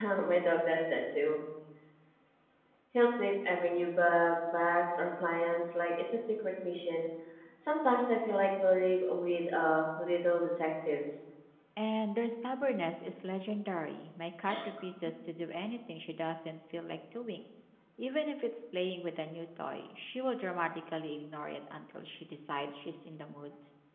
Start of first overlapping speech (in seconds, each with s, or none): none